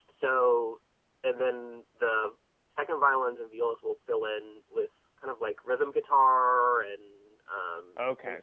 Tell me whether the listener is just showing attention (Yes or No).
No